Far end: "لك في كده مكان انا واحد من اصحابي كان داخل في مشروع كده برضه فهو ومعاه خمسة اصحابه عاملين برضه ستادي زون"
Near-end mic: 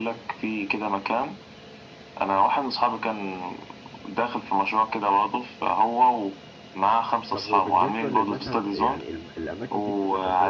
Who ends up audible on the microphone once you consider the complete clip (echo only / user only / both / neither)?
both